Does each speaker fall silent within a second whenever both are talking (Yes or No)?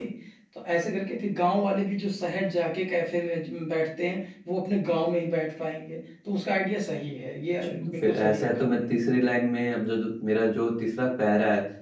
No